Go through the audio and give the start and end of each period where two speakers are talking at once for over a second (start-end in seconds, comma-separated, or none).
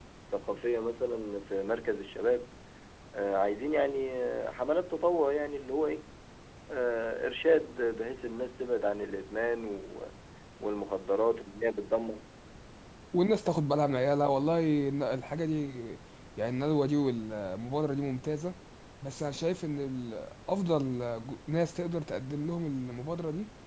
none